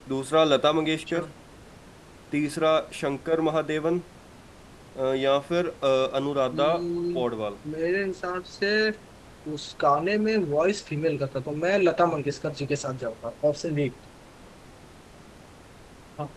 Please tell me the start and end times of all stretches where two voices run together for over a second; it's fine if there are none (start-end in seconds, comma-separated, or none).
none